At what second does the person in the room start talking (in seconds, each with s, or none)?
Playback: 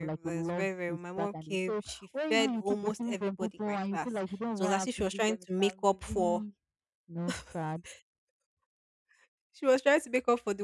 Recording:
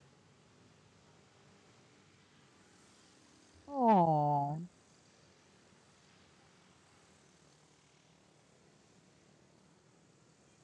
3.7 s